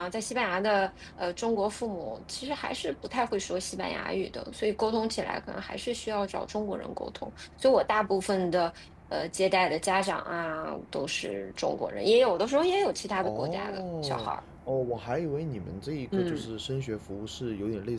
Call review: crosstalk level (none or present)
present